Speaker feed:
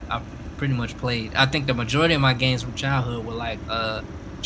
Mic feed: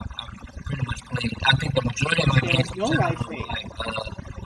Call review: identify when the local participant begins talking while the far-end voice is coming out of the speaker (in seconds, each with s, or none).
2.2 s